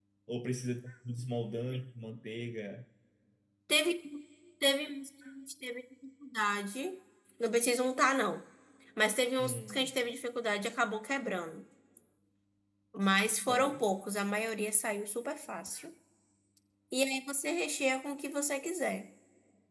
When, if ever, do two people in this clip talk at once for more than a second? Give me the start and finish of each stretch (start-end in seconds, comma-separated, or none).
none